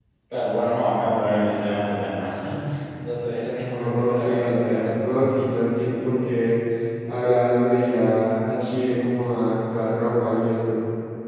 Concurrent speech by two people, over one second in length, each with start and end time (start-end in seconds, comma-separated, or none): 3.7-4.9